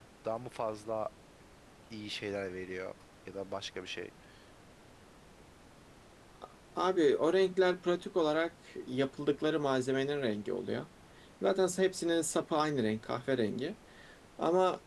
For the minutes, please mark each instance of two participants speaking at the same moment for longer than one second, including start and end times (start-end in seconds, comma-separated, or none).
none